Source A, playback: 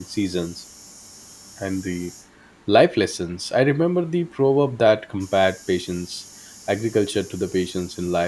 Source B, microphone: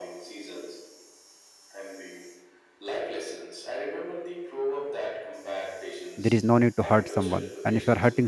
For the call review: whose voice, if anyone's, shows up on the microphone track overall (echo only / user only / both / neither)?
both